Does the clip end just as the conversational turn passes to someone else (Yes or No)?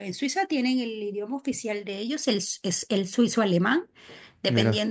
No